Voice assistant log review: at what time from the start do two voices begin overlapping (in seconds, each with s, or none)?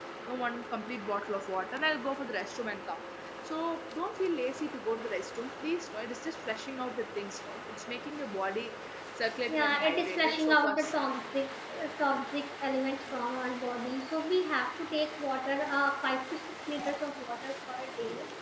9.5 s